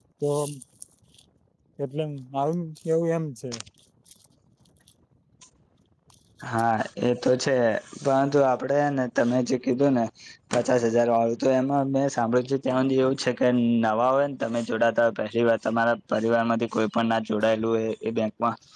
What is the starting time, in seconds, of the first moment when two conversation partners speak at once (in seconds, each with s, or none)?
none